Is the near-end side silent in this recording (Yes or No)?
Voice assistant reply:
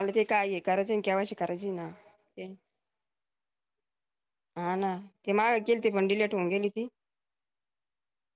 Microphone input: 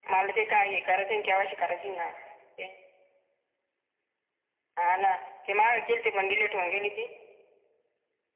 Yes